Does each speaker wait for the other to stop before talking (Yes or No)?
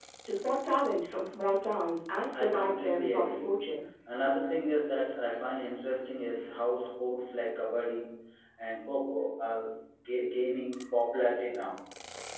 No